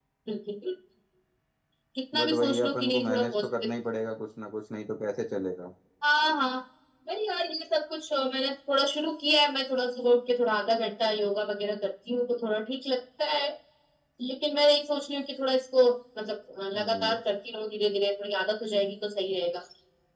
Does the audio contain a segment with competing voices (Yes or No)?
Yes